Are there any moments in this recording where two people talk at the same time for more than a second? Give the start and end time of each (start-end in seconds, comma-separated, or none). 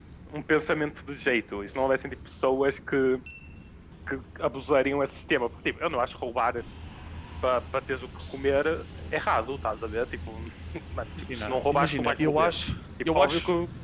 11.3-12.5